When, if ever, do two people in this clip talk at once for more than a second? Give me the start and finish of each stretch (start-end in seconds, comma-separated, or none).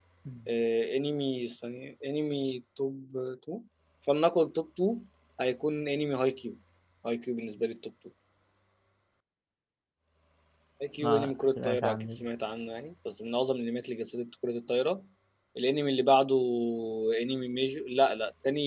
11.0-12.3